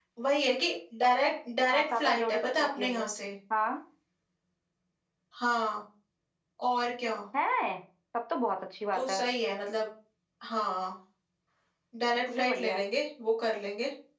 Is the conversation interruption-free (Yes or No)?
No